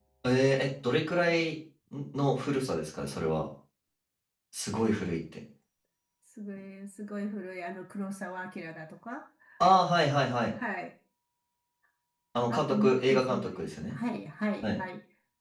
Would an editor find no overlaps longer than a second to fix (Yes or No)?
No